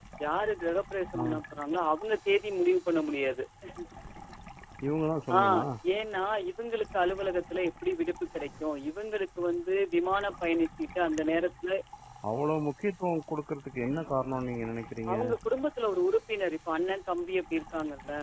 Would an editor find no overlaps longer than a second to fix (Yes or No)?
Yes